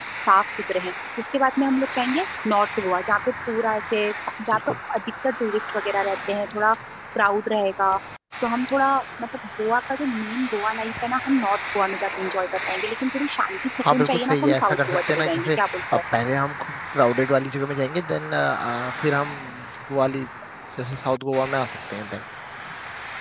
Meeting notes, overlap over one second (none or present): present